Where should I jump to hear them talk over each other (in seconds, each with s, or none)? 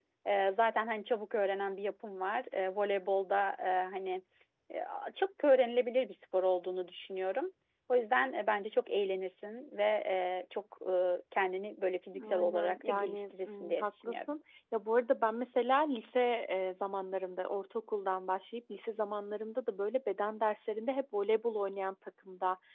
12.1 s